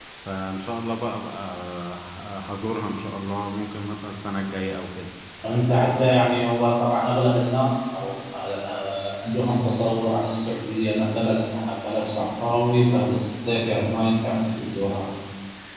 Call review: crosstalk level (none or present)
none